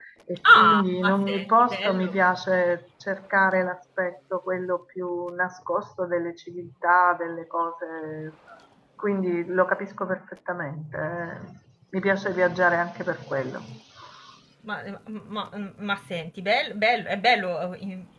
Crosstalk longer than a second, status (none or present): present